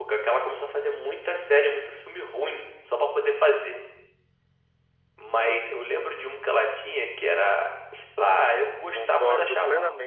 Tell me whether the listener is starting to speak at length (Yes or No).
Yes